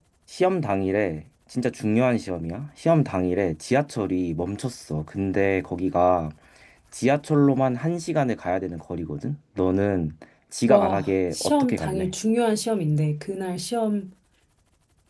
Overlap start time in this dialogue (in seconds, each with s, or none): 10.7 s